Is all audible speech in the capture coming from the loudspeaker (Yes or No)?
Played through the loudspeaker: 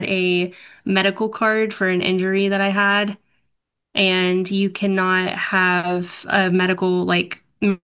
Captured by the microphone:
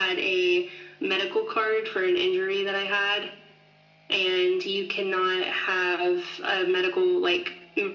Yes